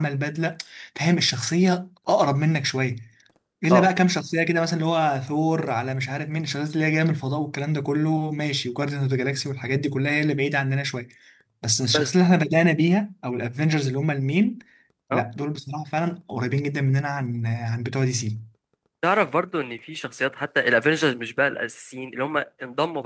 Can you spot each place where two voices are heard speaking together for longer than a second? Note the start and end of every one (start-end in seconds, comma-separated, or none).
none